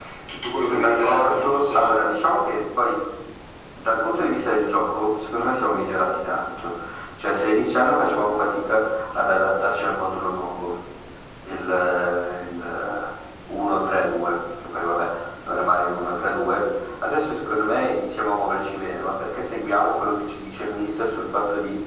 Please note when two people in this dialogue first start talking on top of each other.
0.7 s

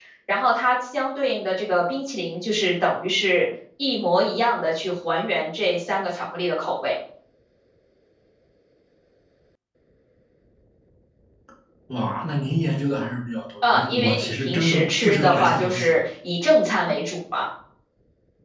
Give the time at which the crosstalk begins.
13.6 s

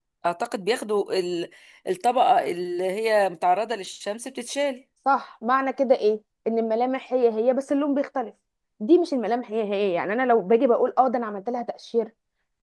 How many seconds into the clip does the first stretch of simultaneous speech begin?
none

